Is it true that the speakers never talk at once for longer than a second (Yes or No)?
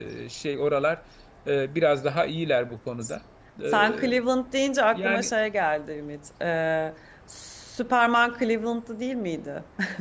Yes